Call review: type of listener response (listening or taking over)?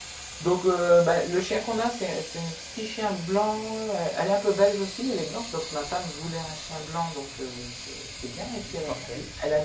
listening